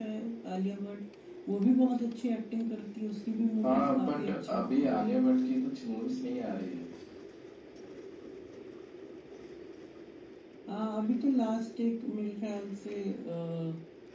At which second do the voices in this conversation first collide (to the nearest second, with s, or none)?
4 s